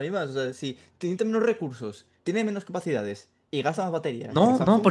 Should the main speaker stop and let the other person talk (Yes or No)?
Yes